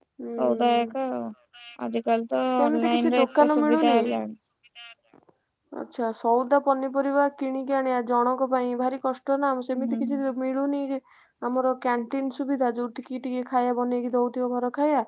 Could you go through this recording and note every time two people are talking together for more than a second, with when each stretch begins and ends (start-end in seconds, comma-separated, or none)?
2.6-4.0